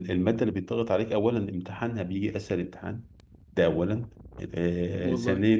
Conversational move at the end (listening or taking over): listening